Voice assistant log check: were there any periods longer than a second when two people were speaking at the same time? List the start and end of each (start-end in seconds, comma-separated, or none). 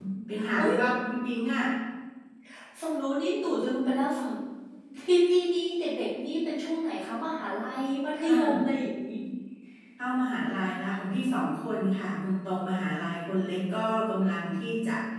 none